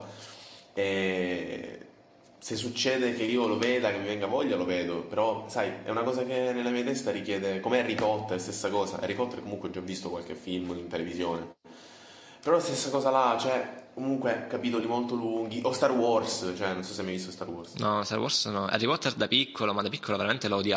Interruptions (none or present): none